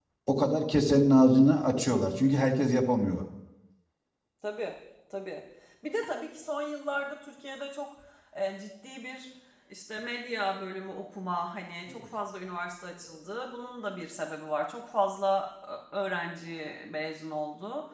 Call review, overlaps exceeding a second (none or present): none